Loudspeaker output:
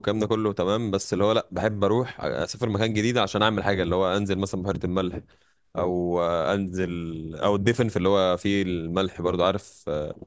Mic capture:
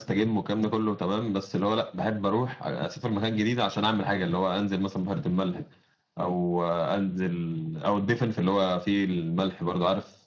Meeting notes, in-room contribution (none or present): none